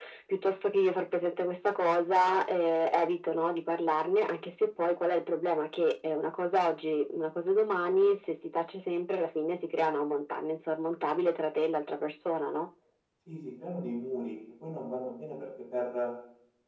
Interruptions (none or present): none